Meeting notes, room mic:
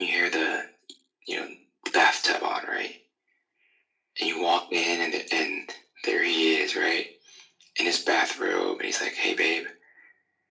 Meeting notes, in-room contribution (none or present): none